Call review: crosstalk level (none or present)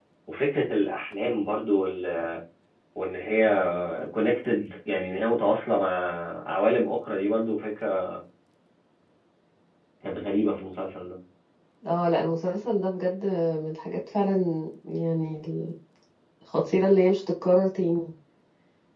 none